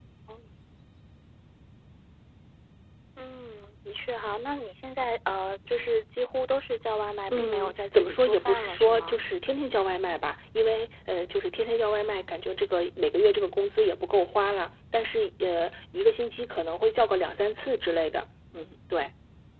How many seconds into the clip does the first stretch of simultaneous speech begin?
7.3 s

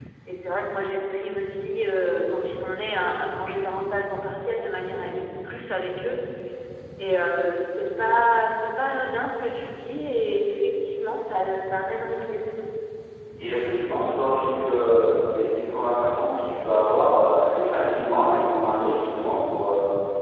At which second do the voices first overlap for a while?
none

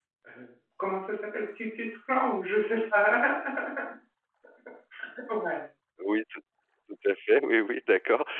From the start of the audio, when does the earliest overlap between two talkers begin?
none

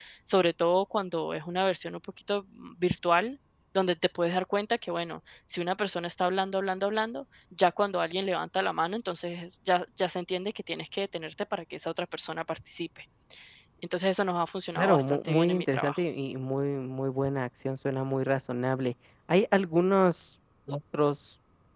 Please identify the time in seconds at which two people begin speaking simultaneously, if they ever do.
14.8 s

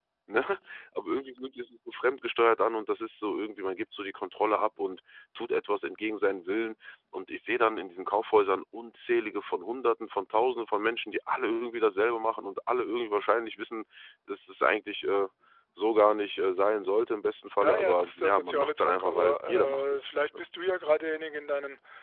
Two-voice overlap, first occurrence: 17.6 s

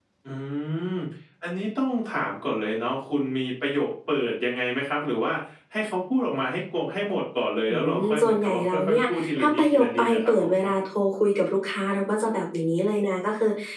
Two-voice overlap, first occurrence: 7.7 s

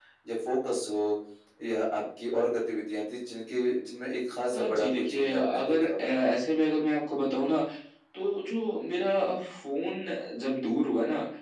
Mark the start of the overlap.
4.5 s

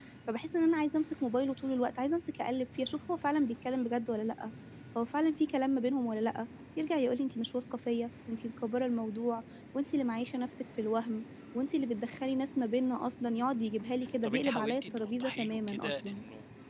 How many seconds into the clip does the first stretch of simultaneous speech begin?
14.2 s

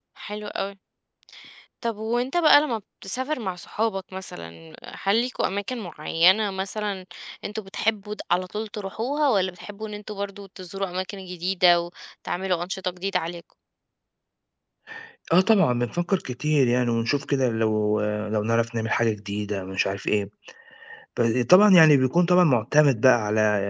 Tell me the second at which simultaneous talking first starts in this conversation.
none

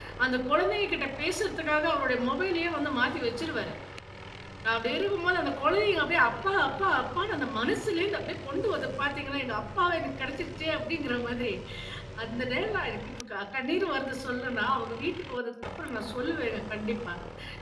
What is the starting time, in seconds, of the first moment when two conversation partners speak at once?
none

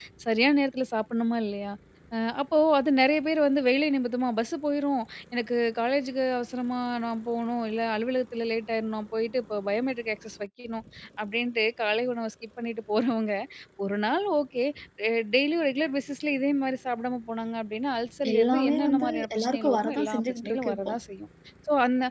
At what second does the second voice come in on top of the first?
18.2 s

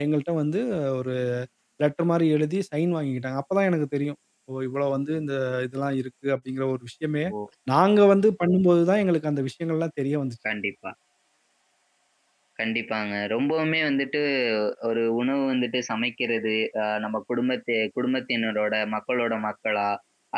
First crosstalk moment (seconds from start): none

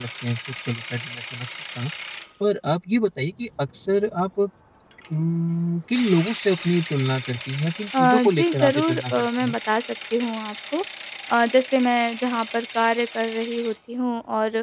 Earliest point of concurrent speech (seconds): 7.9 s

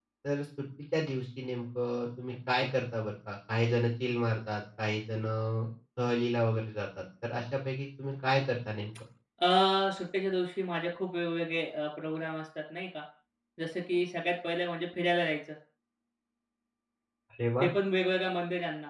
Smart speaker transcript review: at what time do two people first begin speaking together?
none

